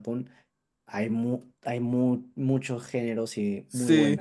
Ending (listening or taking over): taking over